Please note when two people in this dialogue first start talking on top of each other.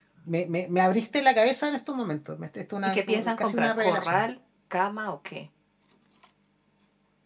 2.8 s

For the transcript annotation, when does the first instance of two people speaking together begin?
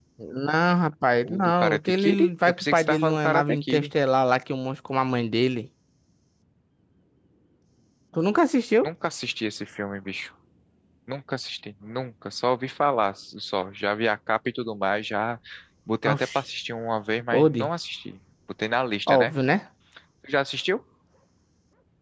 1.2 s

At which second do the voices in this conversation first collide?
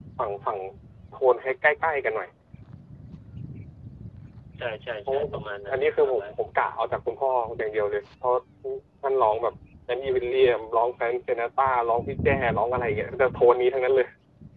5.1 s

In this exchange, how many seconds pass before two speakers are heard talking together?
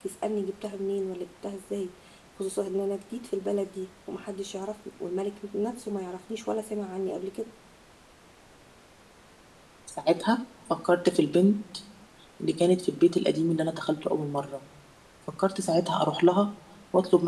none

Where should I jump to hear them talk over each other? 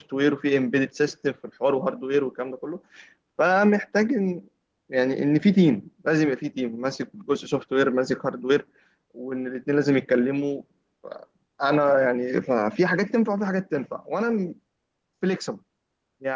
none

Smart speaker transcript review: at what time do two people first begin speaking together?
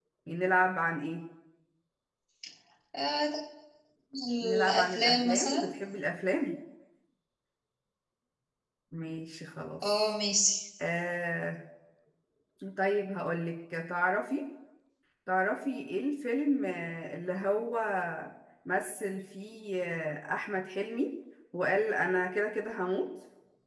4.4 s

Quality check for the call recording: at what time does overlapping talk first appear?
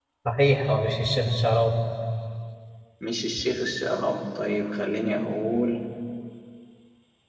none

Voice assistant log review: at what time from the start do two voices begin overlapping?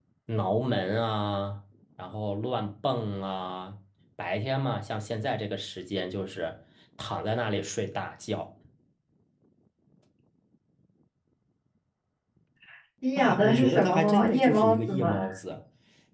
13.2 s

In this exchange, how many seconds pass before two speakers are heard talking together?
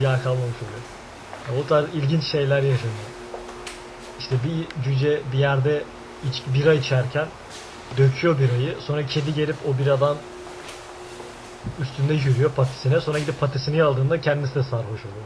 none

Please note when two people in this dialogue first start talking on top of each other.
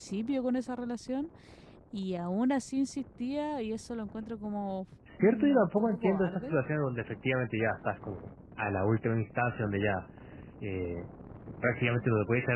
5.1 s

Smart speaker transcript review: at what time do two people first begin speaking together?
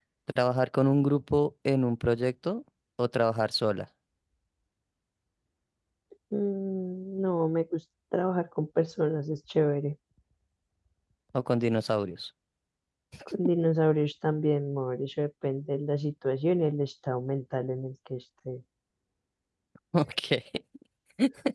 none

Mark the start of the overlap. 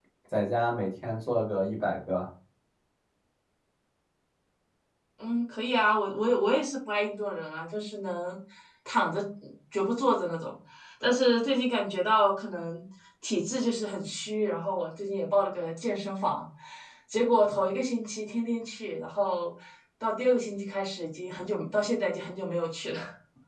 none

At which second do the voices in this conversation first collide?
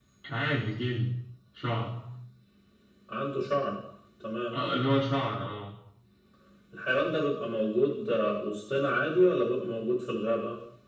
none

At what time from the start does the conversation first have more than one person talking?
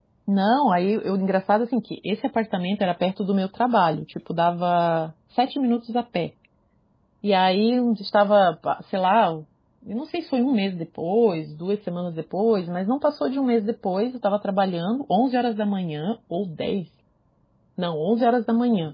none

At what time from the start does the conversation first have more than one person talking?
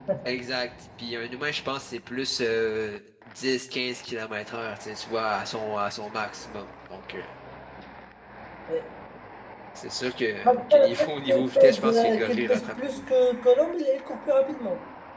10.4 s

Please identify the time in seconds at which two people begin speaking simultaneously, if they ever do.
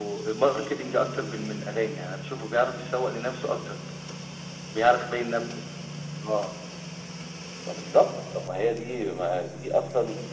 none

